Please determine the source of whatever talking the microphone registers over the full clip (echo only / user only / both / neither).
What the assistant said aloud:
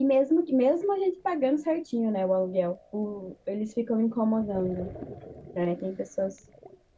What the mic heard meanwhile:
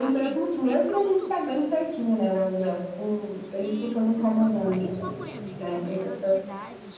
both